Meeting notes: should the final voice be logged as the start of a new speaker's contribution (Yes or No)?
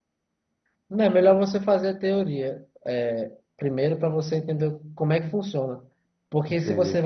No